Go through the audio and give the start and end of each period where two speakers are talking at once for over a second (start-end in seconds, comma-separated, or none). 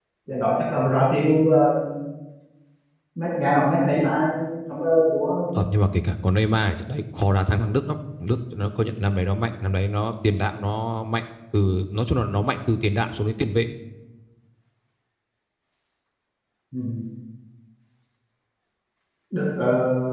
none